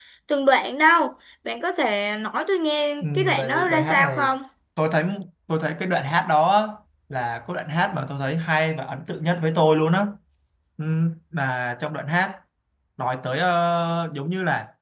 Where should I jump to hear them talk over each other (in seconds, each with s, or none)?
3.0 s